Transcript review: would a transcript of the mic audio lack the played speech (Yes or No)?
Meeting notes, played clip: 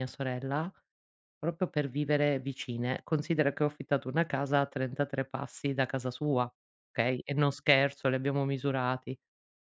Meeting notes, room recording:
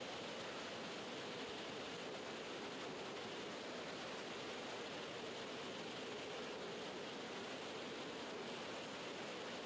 Yes